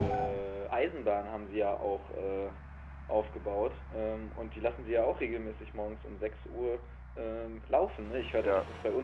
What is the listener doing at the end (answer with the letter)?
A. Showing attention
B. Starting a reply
A